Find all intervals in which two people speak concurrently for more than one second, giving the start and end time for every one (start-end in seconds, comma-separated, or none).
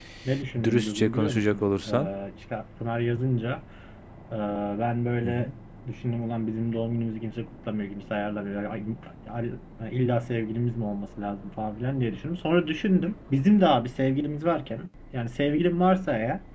0.6-2.1